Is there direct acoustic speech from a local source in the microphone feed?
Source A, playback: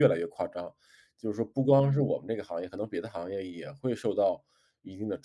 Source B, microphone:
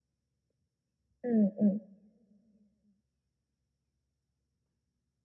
Yes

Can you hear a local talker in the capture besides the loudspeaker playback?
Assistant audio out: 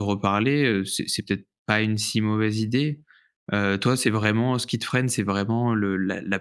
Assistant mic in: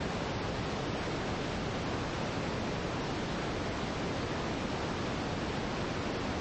No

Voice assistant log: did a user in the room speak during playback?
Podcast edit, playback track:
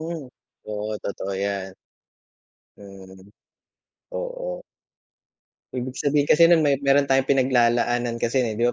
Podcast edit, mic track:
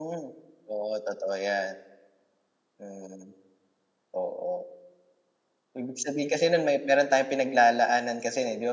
No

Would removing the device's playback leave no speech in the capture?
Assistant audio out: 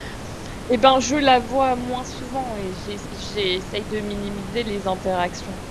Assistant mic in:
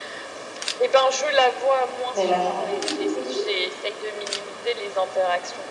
No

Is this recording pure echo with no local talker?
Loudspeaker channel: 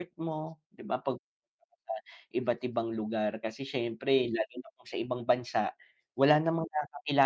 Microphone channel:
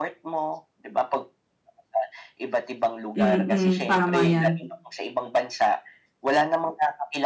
No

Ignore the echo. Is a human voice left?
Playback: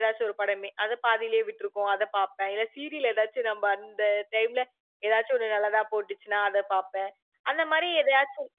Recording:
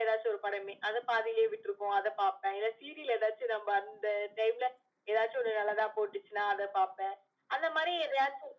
No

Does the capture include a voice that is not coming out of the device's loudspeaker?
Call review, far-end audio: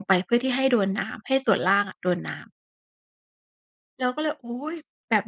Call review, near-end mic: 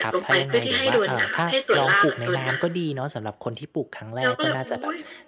Yes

